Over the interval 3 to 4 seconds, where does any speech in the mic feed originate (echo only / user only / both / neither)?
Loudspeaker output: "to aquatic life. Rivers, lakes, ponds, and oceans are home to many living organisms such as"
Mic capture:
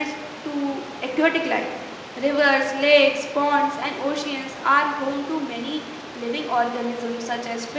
echo only